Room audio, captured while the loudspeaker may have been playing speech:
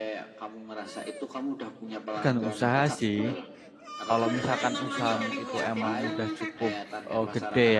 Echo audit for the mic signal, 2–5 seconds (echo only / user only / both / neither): both